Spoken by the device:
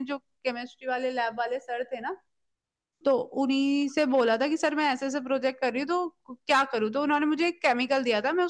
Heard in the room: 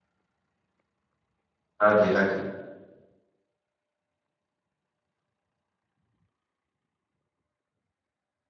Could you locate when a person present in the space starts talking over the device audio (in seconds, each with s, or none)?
1.8 s